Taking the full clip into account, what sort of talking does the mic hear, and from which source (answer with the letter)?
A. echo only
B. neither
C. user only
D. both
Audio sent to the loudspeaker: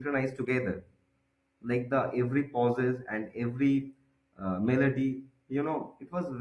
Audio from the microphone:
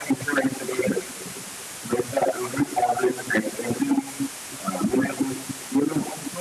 A